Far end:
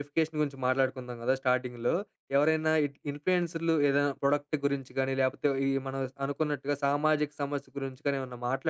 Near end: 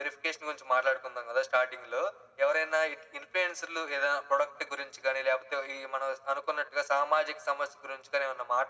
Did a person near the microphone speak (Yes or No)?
No